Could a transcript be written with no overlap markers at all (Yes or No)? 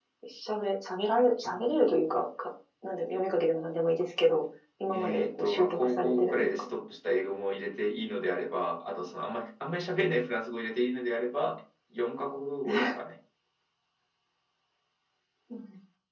No